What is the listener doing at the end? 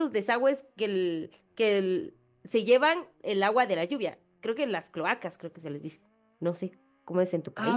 taking over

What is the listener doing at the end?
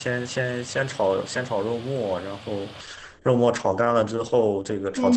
taking over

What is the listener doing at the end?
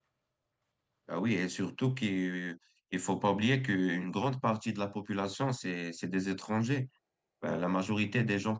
listening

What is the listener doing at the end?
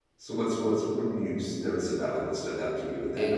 taking over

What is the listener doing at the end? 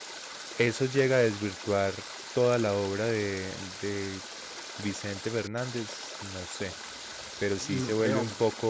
listening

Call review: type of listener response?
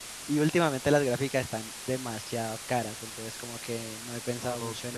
taking over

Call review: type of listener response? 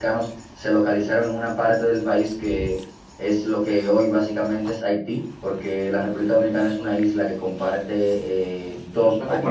taking over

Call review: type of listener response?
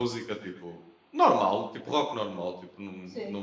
listening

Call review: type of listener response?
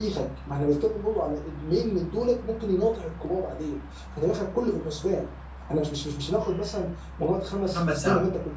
listening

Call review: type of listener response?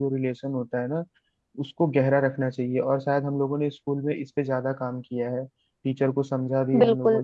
listening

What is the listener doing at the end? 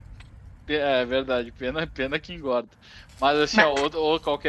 listening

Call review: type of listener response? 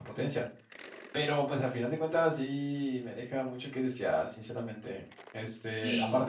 listening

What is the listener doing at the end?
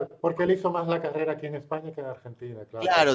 taking over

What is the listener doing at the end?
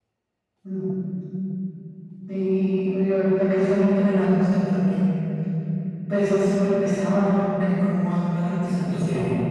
taking over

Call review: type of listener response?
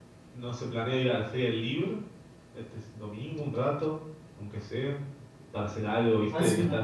taking over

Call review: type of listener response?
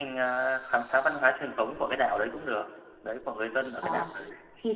taking over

